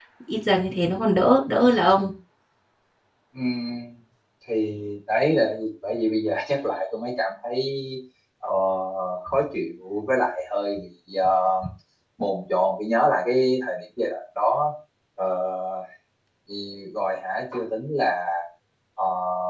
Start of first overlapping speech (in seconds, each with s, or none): none